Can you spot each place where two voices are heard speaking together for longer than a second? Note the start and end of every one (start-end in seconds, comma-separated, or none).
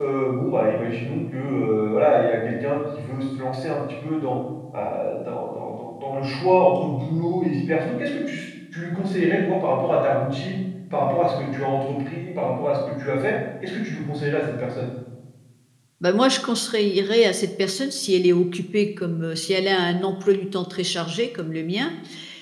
none